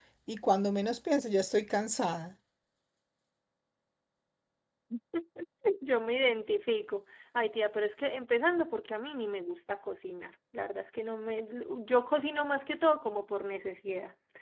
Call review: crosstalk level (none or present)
none